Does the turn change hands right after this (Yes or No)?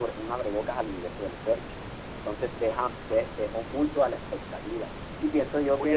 Yes